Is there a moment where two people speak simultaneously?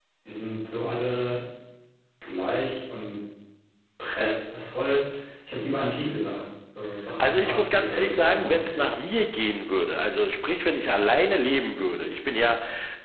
Yes, from 7.2 s

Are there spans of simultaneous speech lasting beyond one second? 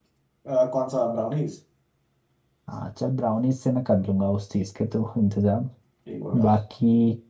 No

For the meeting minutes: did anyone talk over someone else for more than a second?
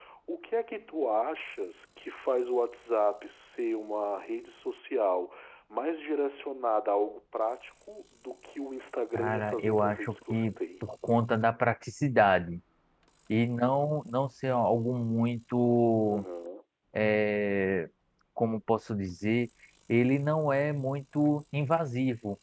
Yes, from 9.2 s

